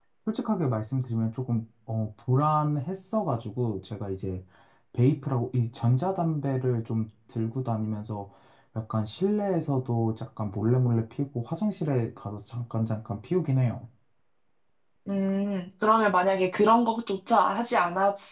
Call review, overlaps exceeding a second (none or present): none